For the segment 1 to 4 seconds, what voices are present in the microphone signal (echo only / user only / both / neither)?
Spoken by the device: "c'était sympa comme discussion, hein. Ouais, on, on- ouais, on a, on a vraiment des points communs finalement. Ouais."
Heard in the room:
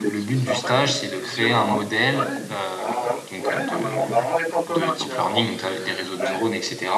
both